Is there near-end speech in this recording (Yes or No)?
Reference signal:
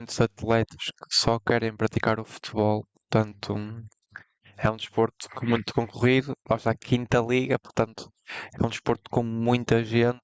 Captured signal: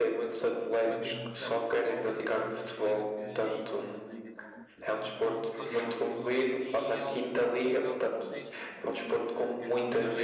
Yes